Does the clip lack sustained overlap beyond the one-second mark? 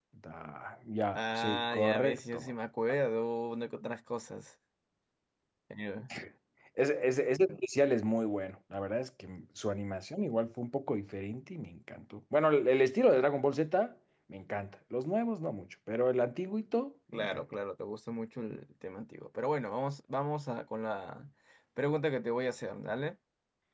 No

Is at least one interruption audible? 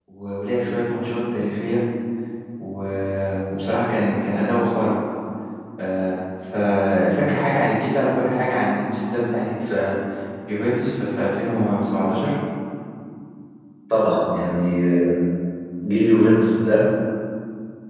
No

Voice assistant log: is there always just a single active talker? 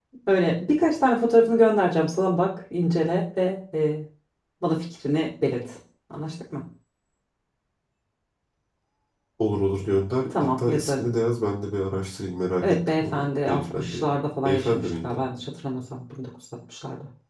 No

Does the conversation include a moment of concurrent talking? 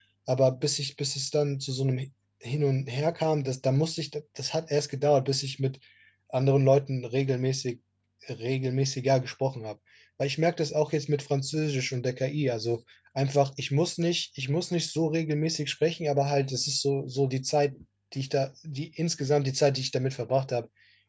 No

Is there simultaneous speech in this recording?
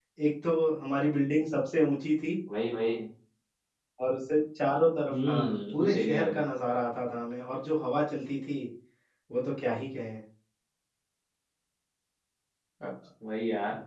Yes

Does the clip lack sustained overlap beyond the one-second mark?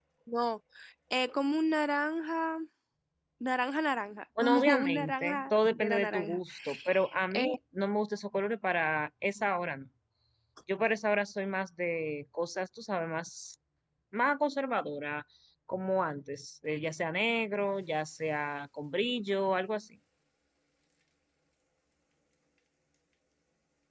No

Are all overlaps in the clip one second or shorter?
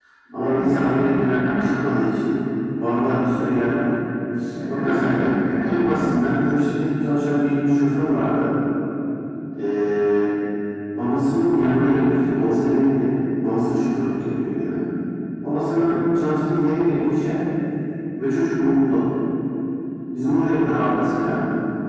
No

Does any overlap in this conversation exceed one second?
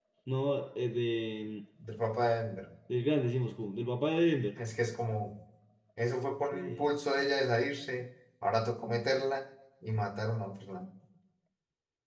No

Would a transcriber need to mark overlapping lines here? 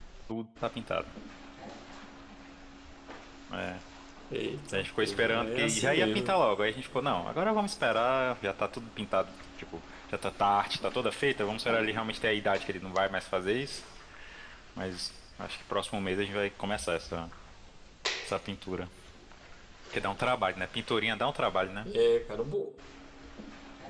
Yes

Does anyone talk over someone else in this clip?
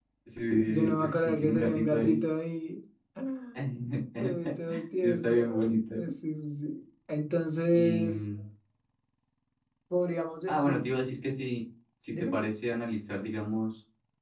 Yes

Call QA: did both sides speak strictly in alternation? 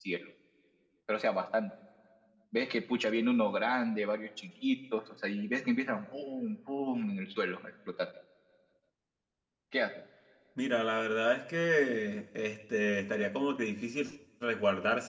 Yes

